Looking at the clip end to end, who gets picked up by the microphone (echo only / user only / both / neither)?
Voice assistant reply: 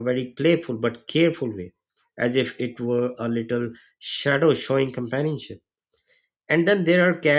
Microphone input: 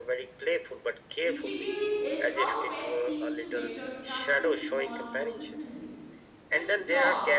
both